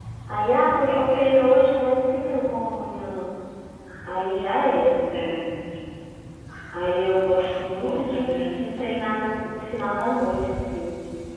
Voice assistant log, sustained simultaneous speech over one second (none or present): present